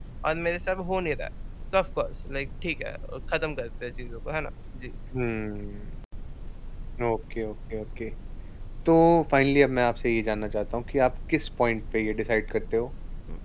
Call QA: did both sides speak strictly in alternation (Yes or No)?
Yes